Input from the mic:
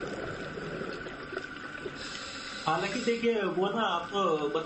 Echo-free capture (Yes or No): Yes